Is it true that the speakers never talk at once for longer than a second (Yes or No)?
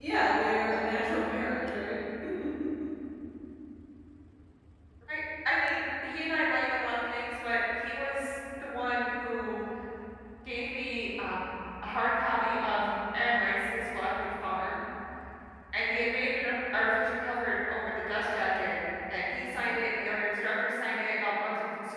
Yes